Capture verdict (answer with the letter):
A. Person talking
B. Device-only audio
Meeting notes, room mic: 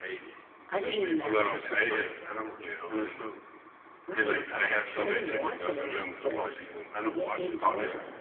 A